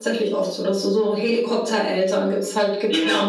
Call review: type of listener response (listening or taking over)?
taking over